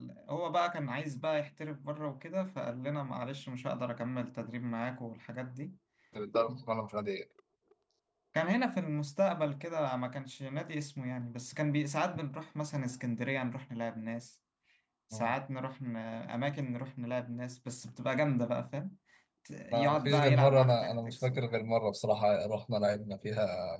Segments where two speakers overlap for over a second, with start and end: 19.7-21.6

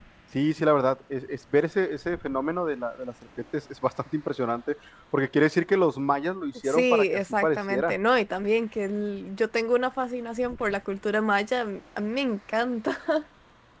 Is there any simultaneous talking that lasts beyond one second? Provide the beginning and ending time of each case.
6.6-8.0

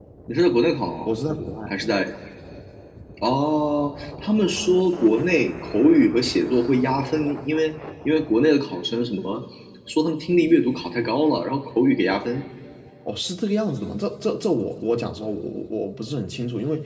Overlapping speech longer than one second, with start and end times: none

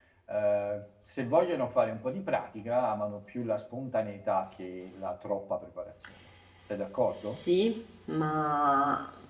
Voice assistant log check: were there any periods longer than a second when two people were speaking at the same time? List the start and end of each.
none

